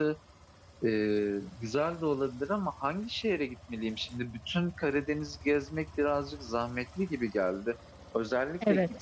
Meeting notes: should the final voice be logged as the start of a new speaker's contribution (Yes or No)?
No